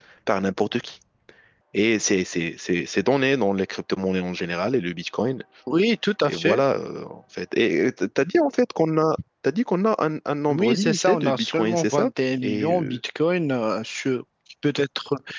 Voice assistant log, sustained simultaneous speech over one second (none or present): present